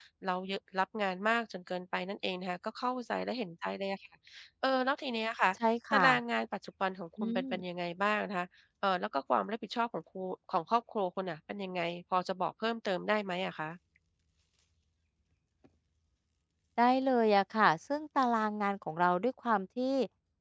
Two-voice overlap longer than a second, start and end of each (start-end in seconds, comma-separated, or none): none